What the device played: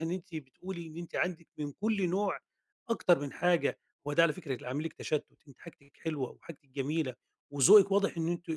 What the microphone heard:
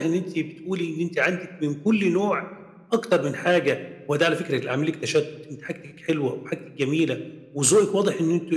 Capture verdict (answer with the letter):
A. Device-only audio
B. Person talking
A